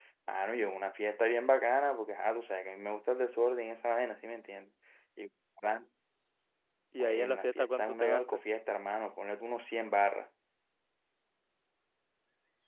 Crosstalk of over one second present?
Yes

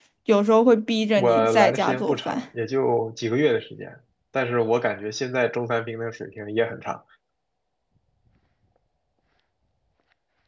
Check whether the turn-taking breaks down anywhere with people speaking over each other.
Yes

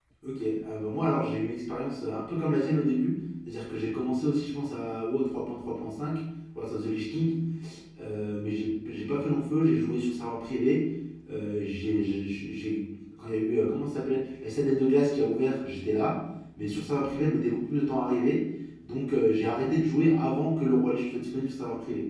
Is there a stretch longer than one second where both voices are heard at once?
No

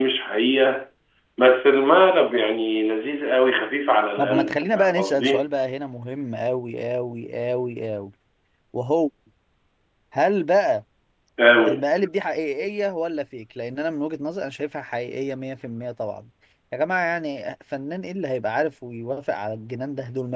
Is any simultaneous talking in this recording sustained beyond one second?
Yes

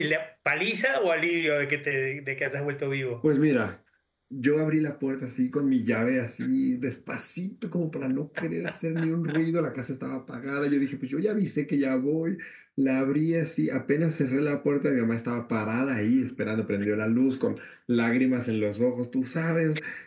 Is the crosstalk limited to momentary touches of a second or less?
Yes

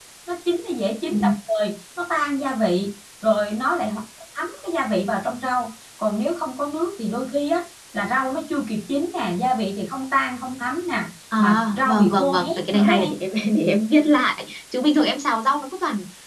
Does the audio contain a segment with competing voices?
Yes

